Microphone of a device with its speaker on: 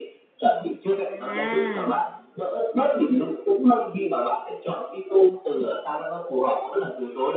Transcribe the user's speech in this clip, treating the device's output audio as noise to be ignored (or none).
à.